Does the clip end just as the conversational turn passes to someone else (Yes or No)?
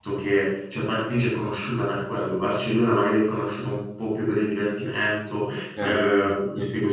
No